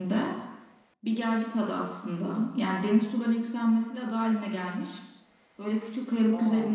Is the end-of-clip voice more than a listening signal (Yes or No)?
No